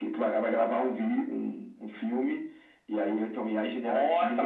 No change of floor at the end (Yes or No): No